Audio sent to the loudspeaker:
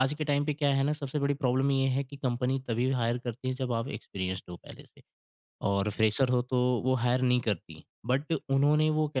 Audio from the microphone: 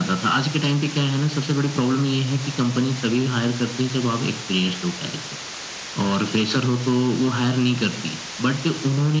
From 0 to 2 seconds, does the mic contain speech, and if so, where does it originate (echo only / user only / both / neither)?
echo only